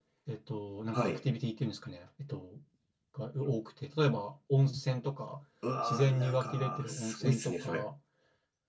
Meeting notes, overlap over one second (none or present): present